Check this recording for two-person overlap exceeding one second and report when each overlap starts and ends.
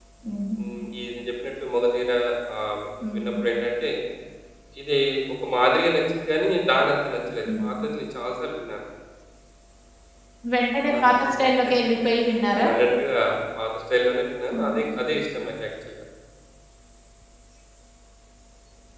none

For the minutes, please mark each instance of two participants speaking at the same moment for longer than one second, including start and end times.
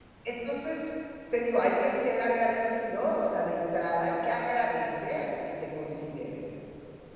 none

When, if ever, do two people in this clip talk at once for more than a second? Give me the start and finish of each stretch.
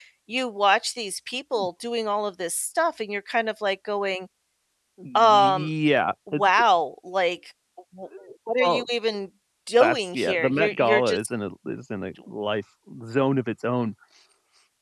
9.8-11.2

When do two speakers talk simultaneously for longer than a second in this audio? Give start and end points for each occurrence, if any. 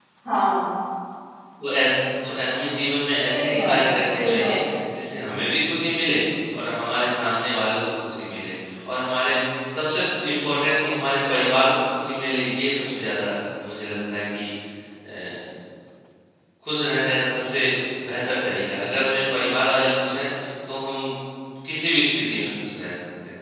3.3-4.8

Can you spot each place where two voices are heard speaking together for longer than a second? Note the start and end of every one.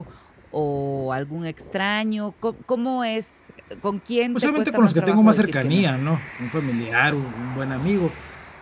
4.3-5.8

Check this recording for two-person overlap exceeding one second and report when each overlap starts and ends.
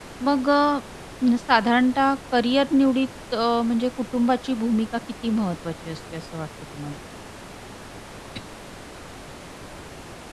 none

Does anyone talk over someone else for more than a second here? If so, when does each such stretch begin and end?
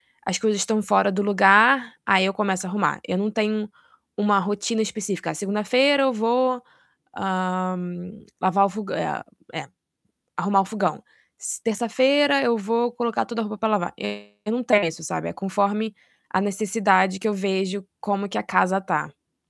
none

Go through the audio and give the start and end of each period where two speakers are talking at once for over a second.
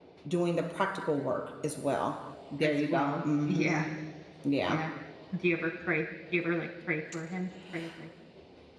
2.6-3.8

